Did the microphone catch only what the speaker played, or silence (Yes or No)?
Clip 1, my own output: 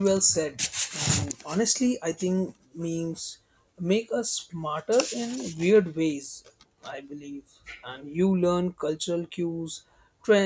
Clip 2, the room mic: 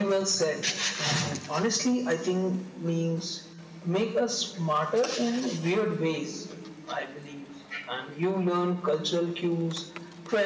Yes